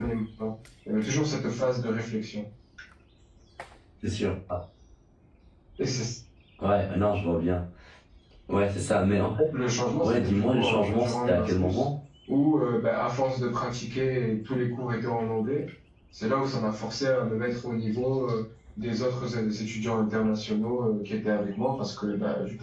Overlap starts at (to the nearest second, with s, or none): 10 s